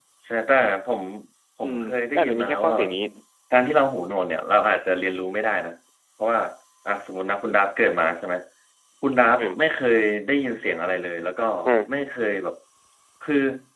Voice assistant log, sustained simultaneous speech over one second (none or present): present